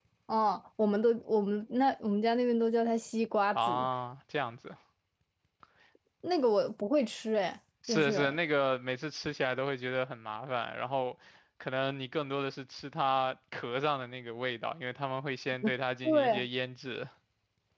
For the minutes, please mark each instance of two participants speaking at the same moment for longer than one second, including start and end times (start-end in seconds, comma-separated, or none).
none